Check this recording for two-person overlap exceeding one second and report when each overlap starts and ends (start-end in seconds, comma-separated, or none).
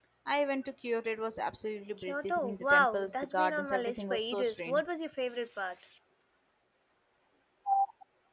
2.0-4.8